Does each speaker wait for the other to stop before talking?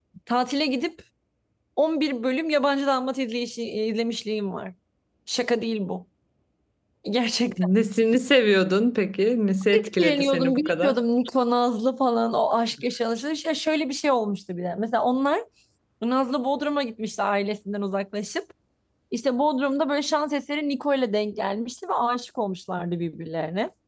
No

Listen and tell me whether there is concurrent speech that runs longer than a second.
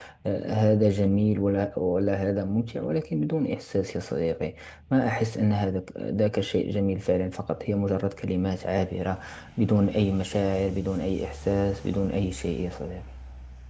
No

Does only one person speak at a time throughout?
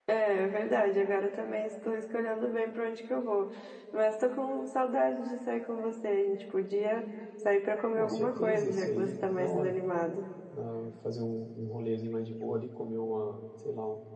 No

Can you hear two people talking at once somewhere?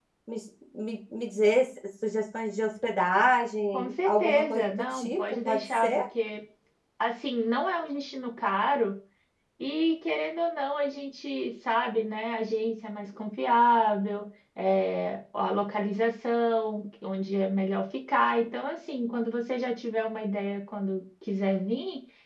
Yes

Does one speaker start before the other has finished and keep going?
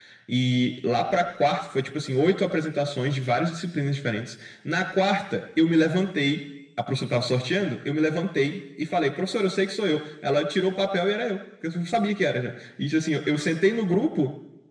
No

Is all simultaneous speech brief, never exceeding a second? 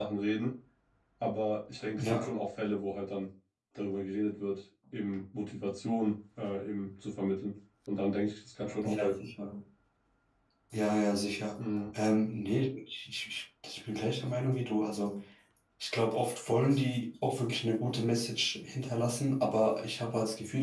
Yes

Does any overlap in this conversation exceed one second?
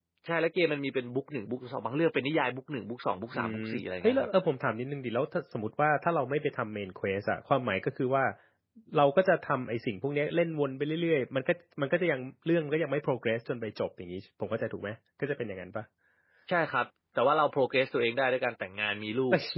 No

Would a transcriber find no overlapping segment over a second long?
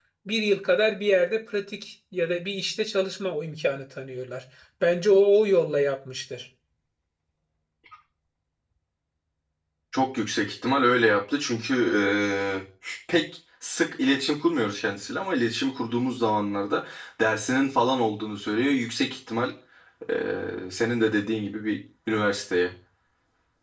Yes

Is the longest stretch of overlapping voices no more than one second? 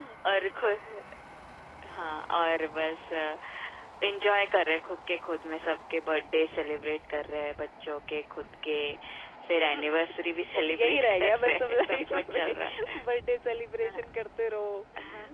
No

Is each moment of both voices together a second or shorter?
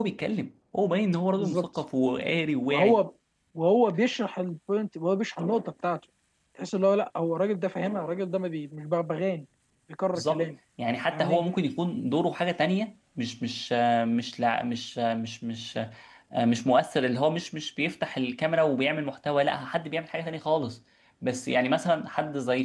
Yes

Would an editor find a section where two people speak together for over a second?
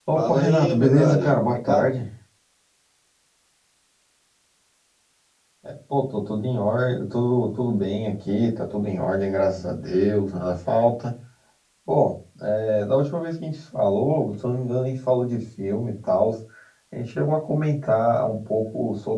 Yes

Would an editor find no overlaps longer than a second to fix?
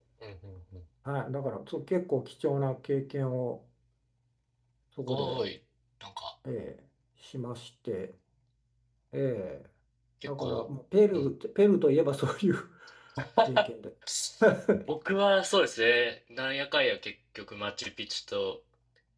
Yes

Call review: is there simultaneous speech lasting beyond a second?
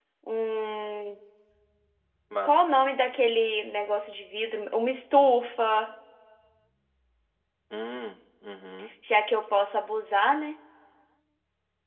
No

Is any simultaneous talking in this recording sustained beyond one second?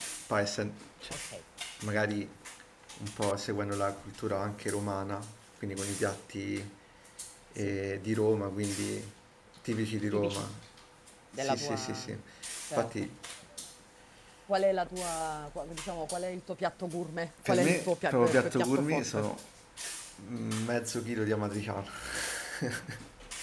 Yes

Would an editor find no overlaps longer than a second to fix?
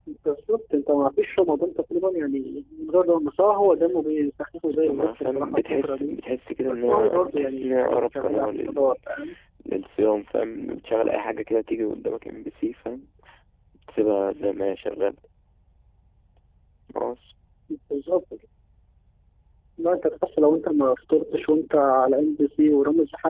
No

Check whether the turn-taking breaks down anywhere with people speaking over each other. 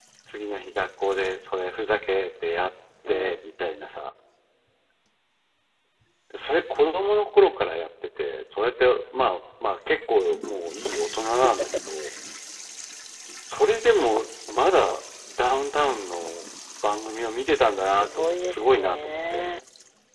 Yes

